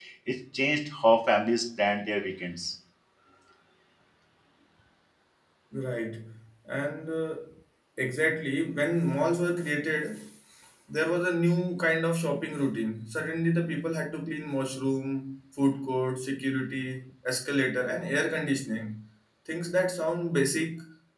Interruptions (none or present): none